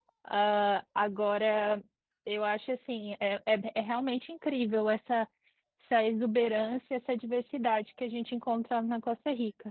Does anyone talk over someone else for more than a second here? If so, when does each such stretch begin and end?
none

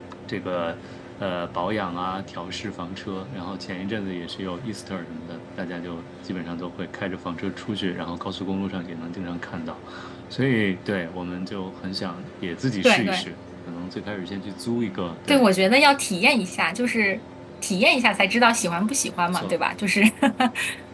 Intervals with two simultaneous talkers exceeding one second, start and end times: none

